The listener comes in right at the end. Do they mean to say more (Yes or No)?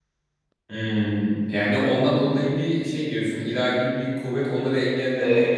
Yes